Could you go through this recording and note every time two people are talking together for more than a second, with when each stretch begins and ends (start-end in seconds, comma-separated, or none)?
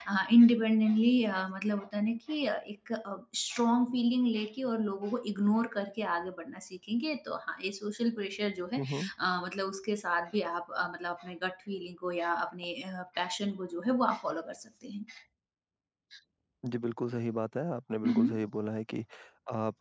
none